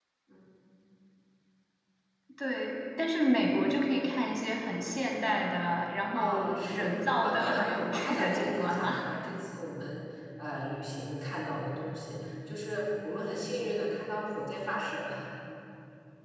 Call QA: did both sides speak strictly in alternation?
No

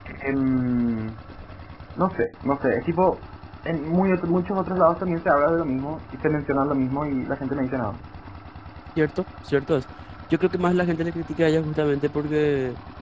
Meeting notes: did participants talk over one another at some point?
No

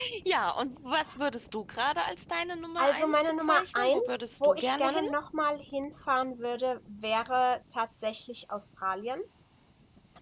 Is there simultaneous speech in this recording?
Yes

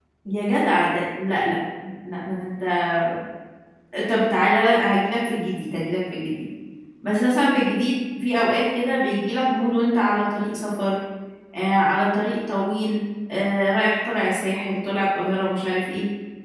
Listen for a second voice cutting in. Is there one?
No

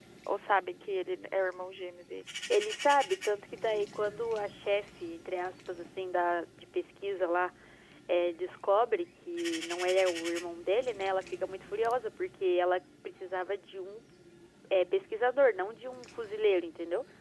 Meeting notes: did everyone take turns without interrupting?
Yes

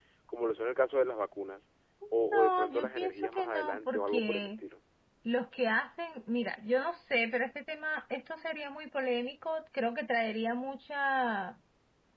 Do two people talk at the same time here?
Yes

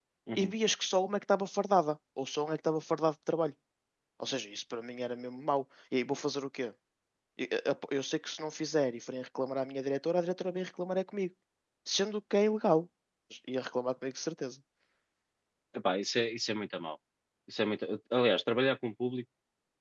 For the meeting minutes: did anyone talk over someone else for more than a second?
No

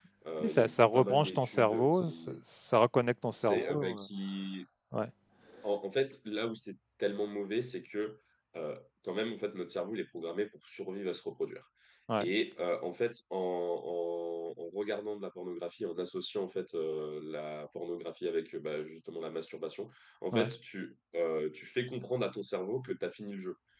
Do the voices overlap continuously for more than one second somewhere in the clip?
Yes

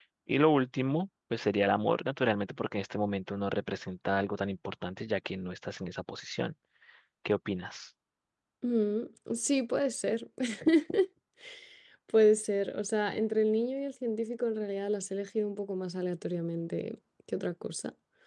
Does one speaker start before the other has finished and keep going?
No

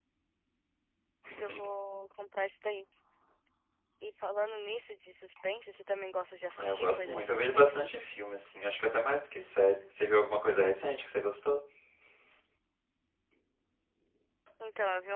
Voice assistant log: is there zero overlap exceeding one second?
No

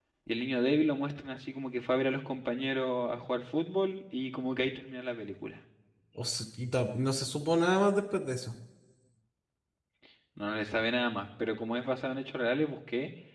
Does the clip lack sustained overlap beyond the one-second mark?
Yes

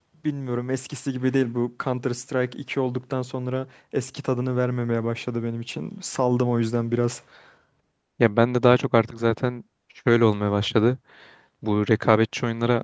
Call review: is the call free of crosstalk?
Yes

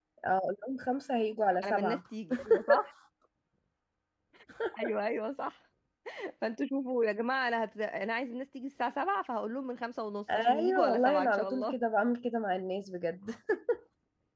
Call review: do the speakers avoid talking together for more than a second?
No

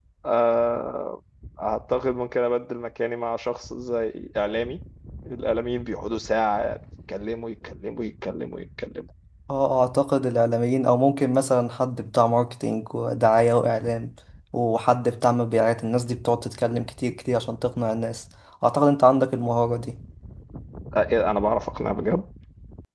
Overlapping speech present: No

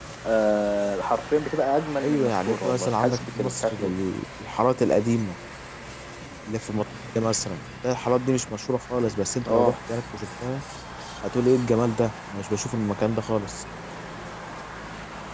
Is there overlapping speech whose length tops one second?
Yes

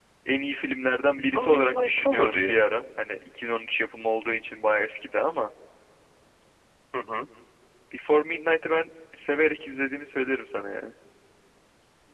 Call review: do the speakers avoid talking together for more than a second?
No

